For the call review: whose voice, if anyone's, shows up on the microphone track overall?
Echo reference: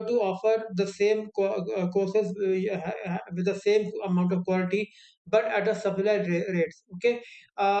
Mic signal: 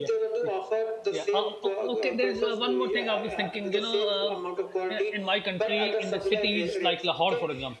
both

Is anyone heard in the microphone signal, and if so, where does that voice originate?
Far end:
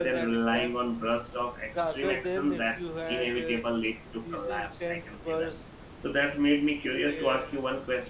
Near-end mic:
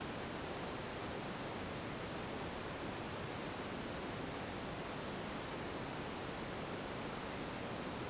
neither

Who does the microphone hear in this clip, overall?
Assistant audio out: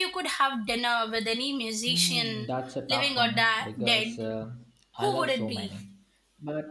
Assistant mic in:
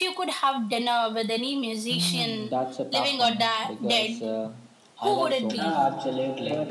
both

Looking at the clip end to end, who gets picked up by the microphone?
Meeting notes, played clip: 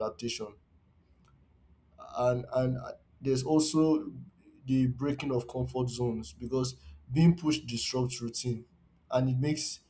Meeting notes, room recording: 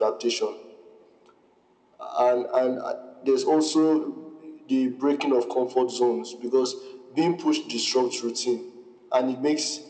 echo only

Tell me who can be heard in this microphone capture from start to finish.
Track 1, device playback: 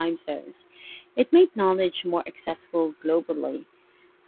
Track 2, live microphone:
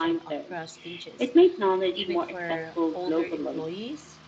both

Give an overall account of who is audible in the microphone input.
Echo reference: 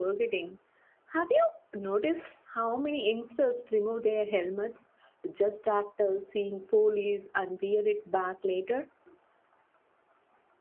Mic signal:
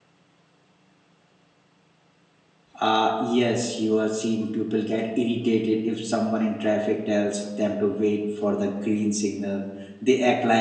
user only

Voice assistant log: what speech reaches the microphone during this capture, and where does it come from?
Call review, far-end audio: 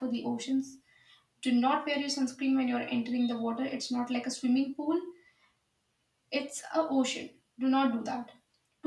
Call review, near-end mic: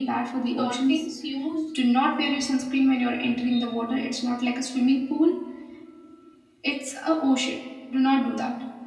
both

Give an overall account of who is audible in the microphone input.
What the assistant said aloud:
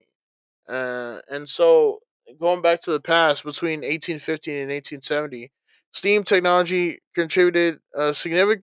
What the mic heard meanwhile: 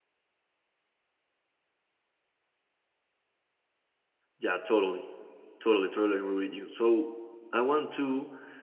user only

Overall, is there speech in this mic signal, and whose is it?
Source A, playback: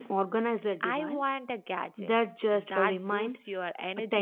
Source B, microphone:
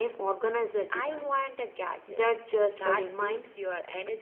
echo only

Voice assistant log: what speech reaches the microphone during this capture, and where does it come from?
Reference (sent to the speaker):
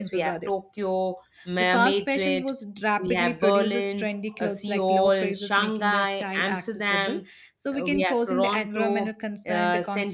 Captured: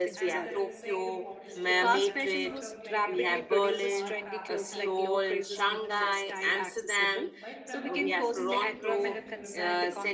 both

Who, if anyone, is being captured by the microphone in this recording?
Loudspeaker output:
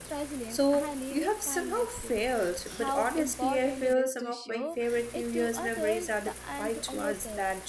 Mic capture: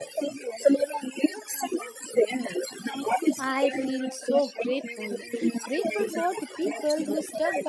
both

